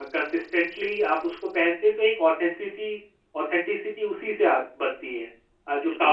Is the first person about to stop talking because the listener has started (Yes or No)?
Yes